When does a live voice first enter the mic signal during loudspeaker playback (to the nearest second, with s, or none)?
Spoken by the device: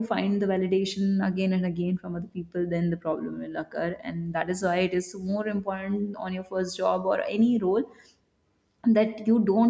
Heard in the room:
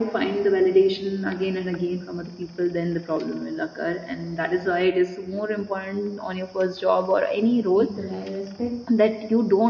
8 s